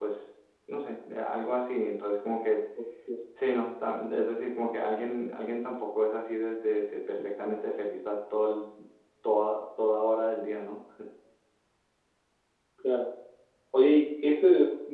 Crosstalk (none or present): none